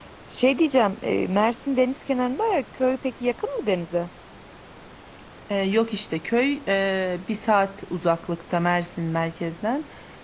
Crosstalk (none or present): none